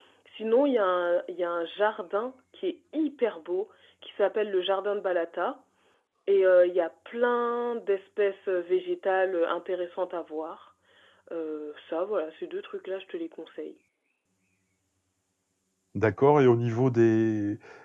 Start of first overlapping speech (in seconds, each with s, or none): none